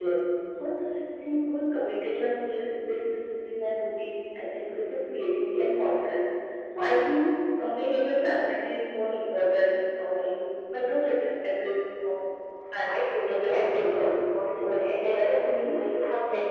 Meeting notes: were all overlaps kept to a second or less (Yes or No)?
No